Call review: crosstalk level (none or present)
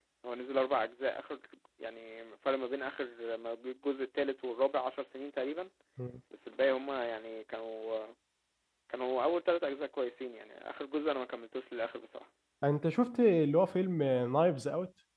none